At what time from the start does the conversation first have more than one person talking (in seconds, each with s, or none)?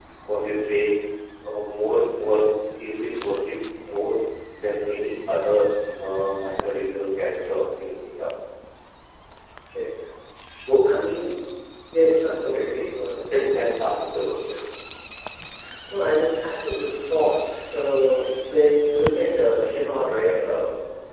none